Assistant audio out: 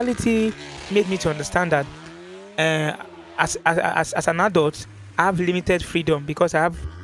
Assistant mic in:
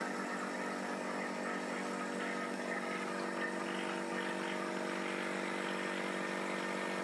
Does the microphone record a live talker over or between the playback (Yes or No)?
No